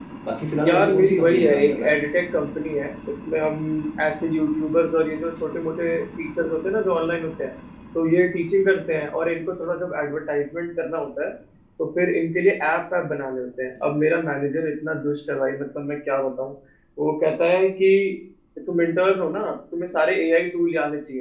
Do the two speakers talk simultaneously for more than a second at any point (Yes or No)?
Yes